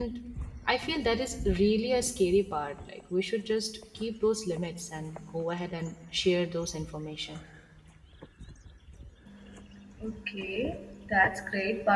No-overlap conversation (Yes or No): Yes